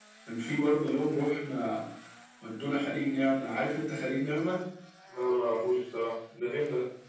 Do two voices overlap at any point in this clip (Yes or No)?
No